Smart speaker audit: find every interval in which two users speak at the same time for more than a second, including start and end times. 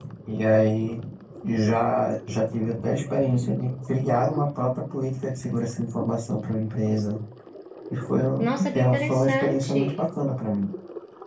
8.4-10.0

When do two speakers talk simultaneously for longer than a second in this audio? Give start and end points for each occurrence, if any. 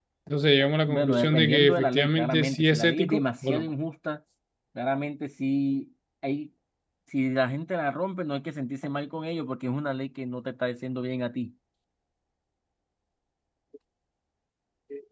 0.9-3.7

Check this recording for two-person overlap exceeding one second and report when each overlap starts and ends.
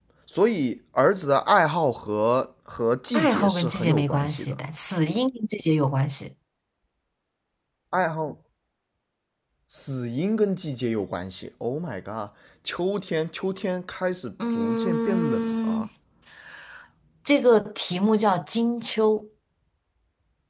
3.1-4.6, 14.6-15.8

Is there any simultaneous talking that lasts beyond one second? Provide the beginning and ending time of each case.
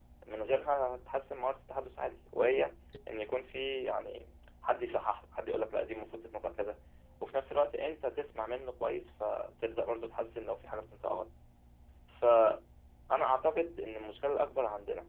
none

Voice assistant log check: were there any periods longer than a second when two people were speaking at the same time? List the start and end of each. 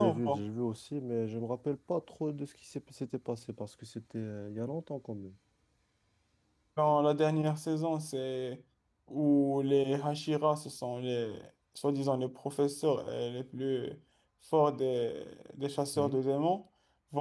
none

